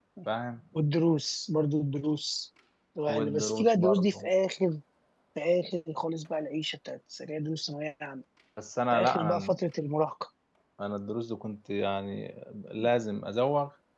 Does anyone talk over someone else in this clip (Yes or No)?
Yes